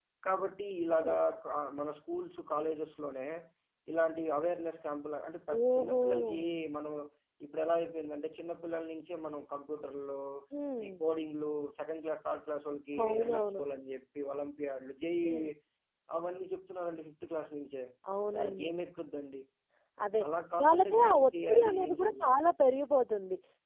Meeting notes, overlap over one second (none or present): present